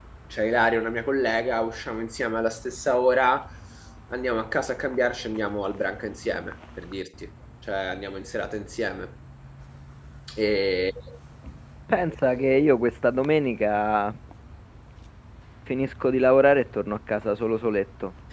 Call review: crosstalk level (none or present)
none